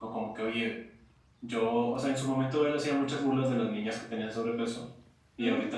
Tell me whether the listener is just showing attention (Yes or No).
Yes